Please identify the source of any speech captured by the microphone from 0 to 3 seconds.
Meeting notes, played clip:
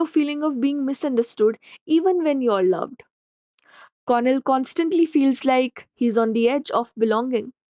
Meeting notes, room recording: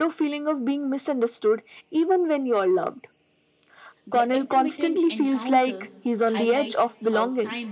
echo only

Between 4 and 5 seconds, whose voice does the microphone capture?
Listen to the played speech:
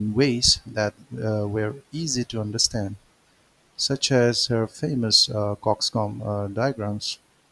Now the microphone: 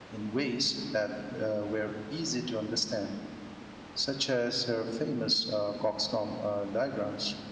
echo only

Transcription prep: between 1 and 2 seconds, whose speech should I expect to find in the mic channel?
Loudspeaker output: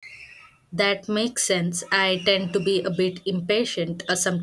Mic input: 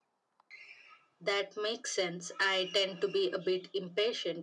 echo only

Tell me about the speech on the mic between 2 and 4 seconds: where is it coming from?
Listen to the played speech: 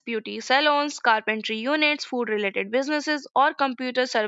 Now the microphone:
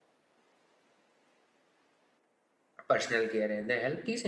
user only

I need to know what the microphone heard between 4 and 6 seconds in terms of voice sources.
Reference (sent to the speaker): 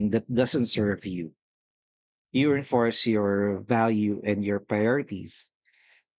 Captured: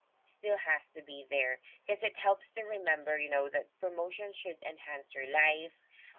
user only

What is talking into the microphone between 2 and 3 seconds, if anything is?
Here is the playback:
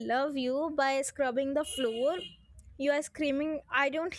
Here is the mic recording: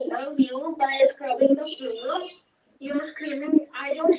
echo only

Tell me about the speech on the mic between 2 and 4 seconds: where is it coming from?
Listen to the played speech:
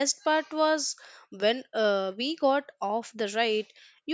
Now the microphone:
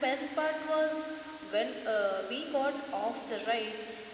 echo only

